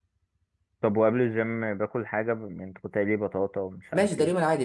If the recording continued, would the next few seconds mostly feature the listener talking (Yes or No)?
Yes